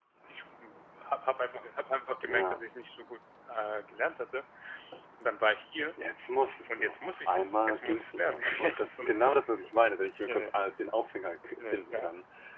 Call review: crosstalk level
present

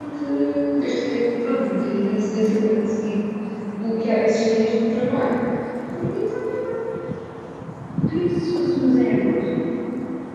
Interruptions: none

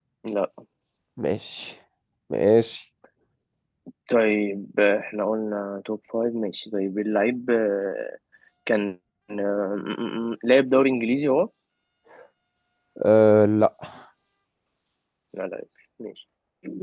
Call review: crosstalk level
none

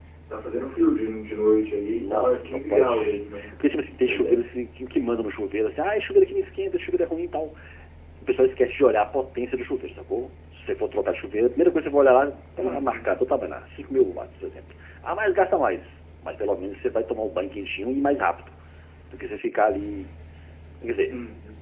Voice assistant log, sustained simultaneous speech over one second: present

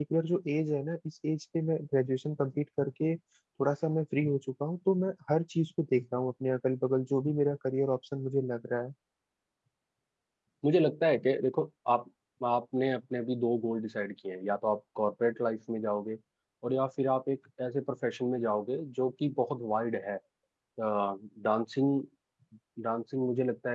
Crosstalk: none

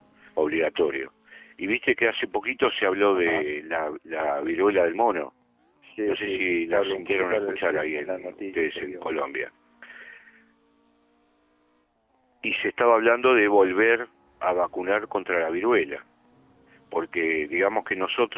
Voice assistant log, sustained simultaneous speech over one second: present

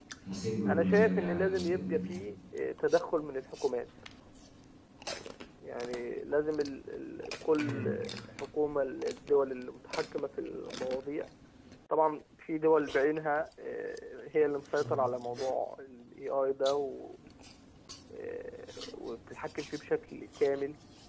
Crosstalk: present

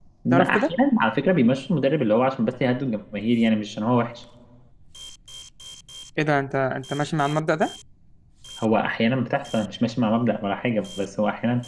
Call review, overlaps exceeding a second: none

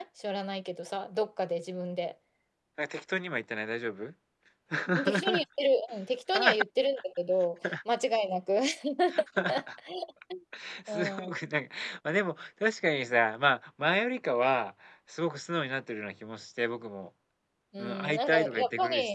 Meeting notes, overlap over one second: present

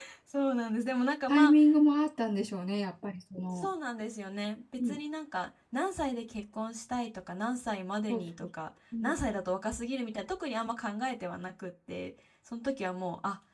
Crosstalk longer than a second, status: none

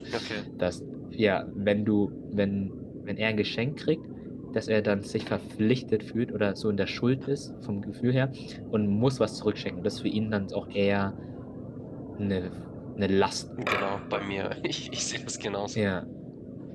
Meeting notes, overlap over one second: none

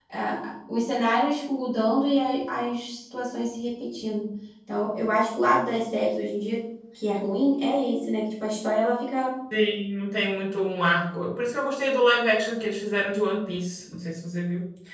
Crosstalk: none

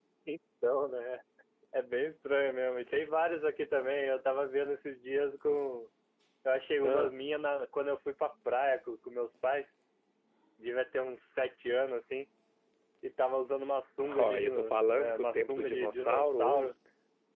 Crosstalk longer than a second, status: present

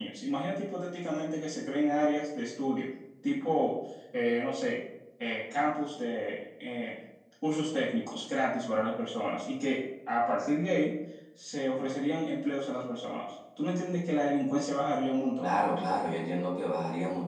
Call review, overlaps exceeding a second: none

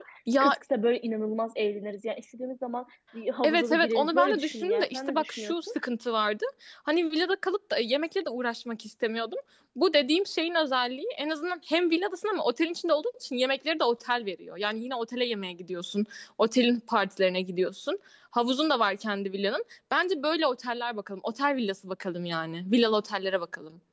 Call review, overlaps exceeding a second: present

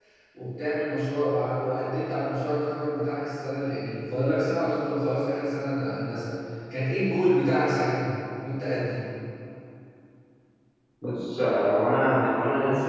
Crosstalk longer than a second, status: none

